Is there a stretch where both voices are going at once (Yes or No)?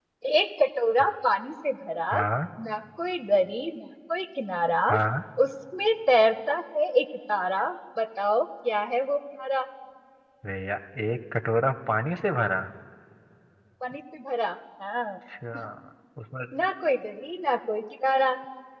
No